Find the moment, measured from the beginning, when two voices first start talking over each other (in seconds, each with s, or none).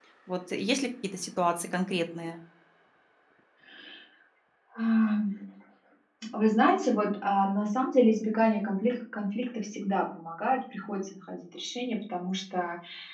none